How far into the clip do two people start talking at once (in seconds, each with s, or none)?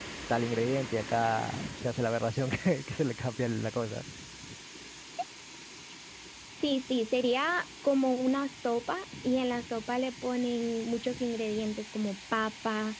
none